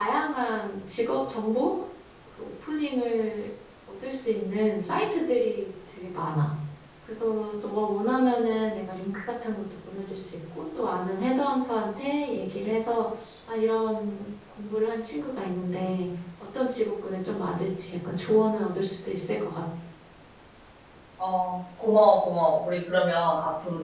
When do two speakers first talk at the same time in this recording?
none

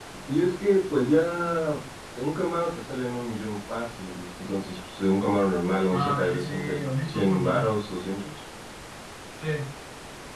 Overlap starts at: 6 s

